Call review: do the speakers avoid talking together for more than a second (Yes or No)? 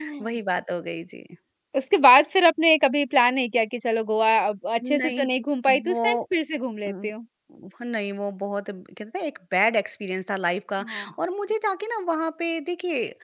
Yes